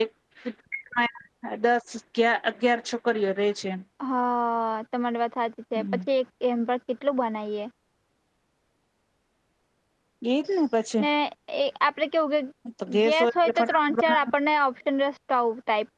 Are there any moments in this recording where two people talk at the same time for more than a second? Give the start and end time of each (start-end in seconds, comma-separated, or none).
13.1-14.3